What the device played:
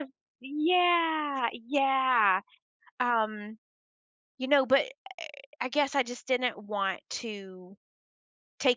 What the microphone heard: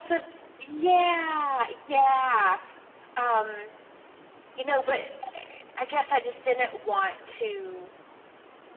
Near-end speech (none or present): none